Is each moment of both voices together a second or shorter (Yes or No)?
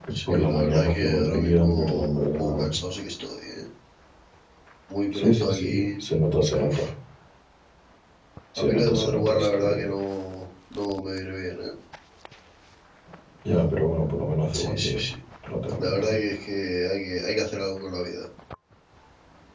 No